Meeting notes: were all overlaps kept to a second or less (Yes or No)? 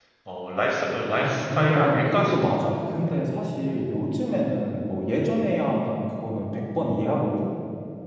No